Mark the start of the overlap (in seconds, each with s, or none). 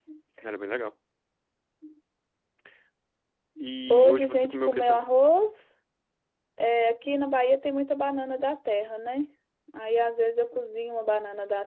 3.9 s